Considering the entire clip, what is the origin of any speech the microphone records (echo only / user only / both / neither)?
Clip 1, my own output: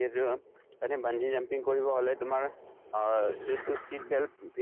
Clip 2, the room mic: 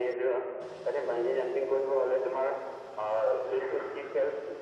echo only